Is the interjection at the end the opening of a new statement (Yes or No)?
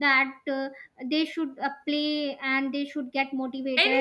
No